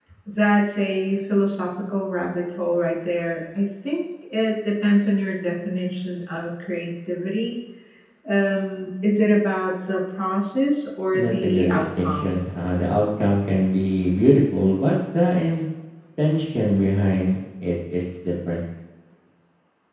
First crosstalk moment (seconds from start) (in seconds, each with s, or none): 11.1 s